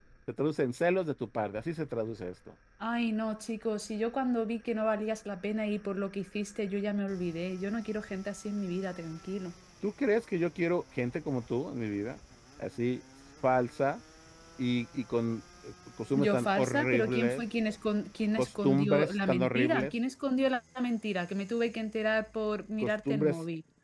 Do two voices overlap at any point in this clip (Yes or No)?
Yes